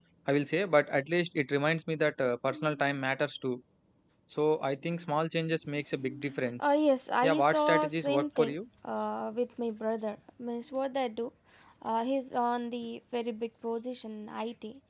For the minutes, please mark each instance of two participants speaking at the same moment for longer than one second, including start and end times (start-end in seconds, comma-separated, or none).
7.2-8.6